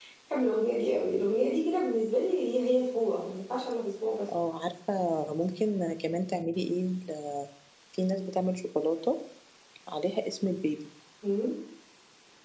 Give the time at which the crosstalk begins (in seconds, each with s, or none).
none